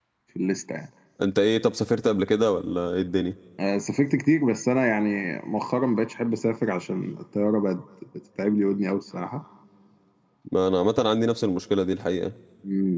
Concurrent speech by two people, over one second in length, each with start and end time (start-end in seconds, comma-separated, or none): none